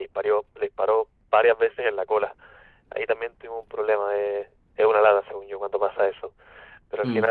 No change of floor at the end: Yes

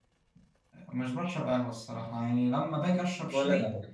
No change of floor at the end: Yes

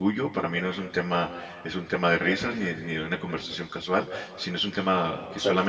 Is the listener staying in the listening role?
Yes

